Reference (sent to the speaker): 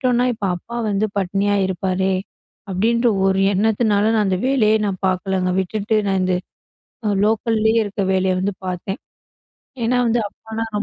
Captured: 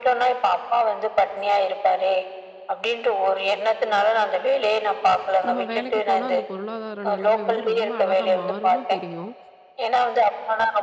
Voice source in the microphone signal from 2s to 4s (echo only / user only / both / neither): echo only